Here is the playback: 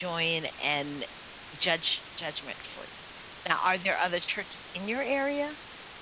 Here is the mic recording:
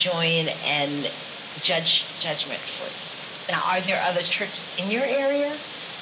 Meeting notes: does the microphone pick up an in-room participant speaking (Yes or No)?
No